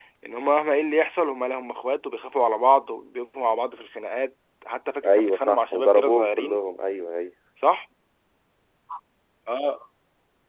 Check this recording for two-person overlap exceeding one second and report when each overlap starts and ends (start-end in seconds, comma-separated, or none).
5.1-6.6